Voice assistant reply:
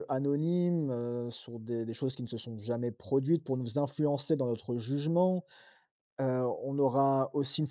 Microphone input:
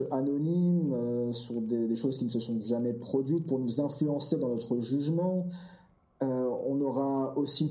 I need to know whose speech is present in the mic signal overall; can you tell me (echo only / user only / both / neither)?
echo only